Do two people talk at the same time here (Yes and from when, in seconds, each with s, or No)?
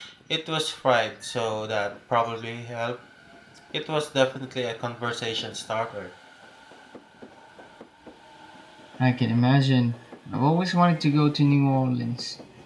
No